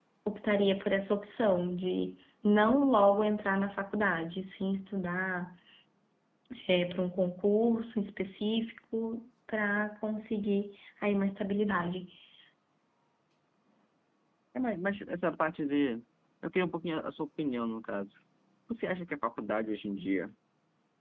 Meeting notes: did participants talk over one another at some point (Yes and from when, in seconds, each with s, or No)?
No